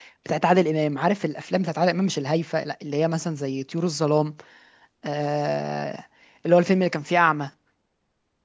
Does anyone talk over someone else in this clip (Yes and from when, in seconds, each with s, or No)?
No